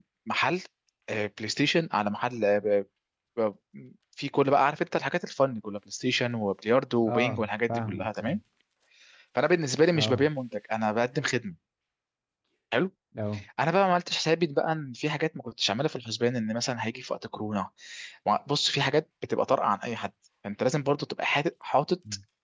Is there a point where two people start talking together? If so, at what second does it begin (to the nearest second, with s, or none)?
7 s